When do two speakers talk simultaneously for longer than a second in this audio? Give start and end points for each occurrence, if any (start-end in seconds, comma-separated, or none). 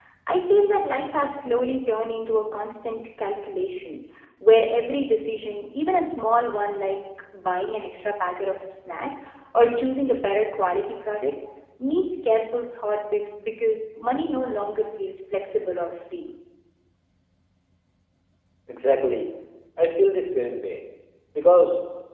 none